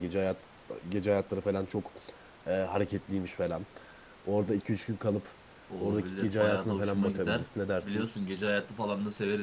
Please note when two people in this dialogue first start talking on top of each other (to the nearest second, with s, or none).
6 s